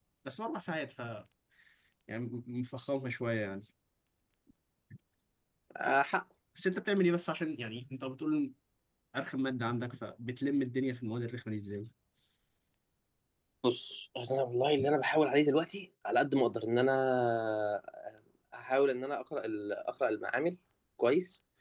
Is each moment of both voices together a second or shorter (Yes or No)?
Yes